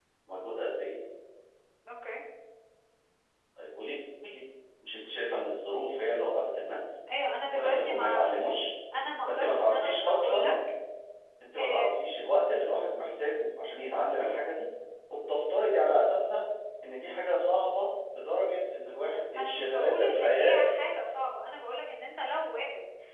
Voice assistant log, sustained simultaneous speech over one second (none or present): present